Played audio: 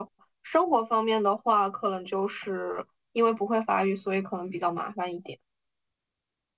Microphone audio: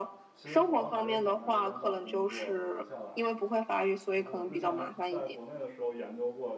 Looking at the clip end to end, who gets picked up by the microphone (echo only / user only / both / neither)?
both